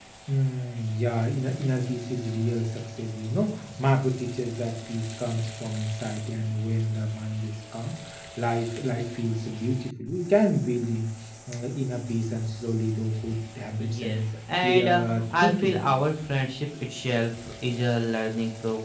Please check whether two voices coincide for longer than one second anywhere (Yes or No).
Yes